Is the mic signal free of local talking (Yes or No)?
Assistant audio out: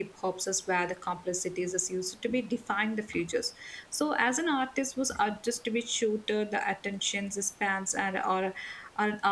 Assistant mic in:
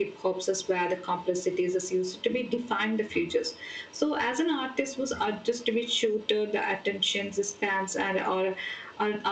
Yes